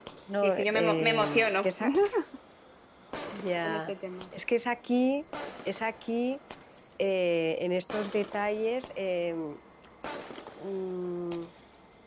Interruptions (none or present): present